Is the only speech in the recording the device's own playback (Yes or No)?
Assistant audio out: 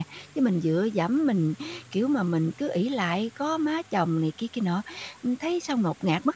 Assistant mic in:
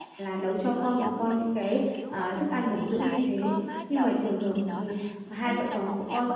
No